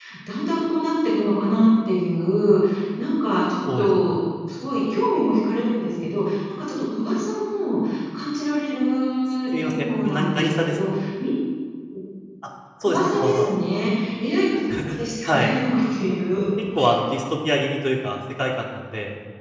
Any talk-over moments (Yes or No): Yes